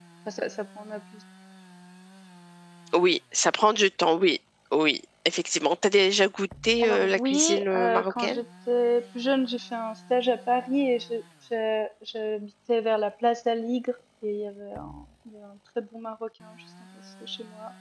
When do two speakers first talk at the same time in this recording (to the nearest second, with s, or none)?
7 s